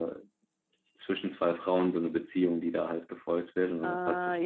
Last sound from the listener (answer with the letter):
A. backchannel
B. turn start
B